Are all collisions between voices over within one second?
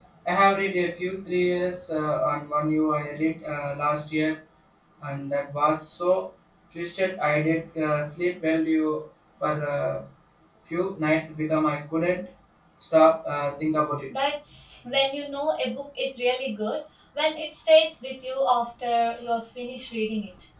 Yes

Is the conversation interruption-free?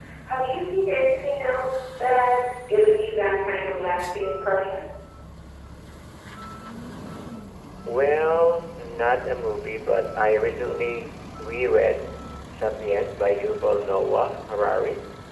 Yes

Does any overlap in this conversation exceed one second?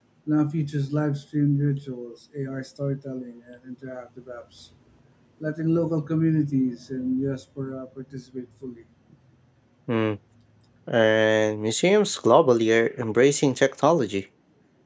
No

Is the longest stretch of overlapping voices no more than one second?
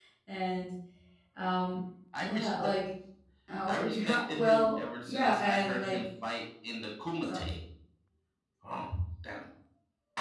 No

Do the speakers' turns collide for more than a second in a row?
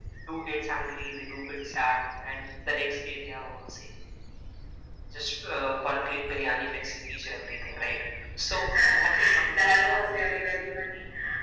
Yes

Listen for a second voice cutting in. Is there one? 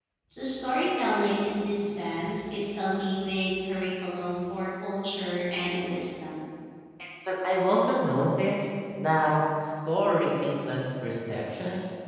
No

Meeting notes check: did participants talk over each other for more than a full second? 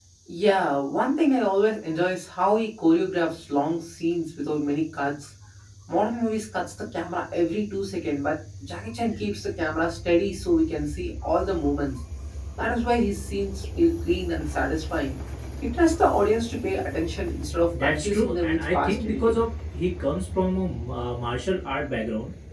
Yes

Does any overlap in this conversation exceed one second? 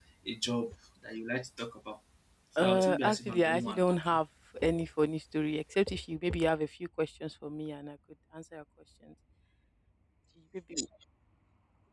Yes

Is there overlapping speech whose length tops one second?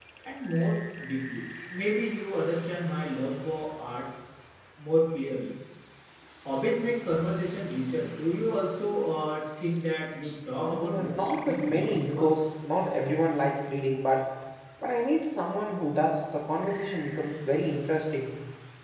Yes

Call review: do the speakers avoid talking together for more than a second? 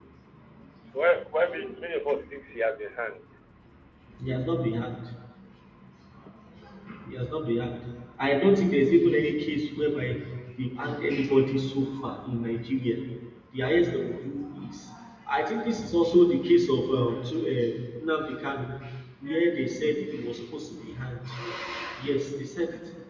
Yes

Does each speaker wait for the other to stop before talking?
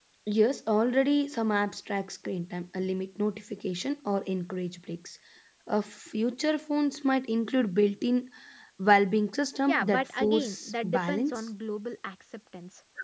No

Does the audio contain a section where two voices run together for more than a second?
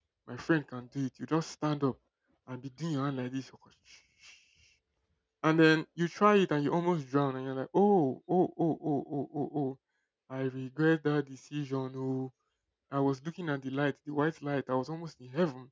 No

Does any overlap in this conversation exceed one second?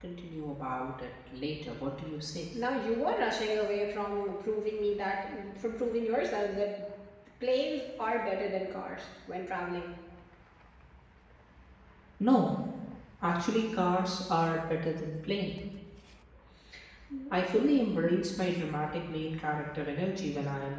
No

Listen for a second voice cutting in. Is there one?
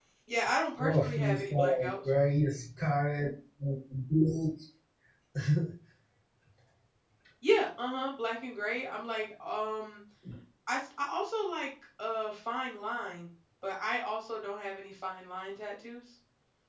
Yes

